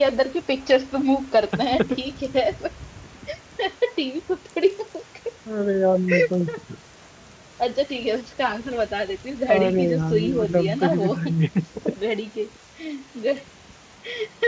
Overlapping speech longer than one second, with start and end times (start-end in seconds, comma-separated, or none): 9.5-11.1